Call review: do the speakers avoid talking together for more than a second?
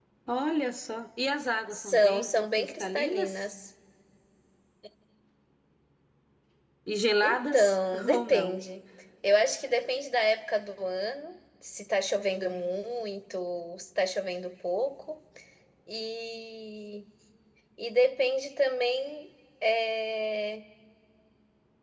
No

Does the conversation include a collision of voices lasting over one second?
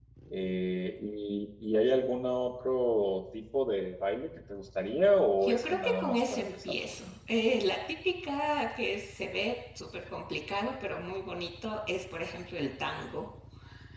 Yes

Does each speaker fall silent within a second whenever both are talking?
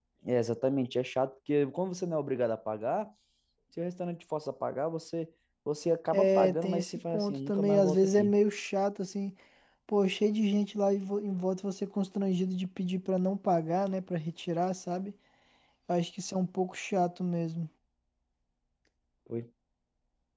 No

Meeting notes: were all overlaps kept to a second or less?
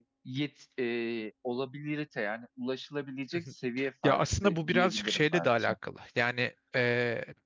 No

